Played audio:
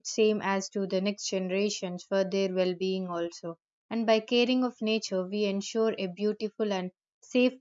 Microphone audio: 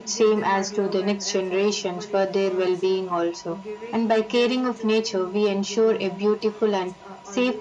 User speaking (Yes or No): Yes